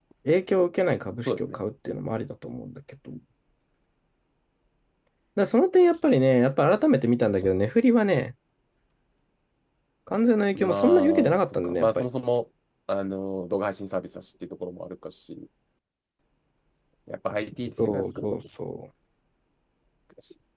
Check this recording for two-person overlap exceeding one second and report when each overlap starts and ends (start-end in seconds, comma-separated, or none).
10.6-12.0